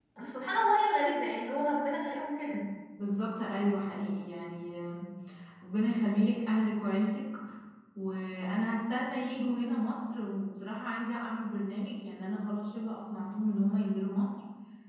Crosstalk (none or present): none